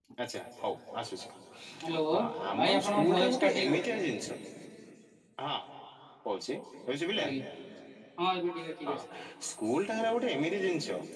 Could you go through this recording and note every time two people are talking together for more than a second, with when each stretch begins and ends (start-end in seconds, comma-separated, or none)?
2.5-3.8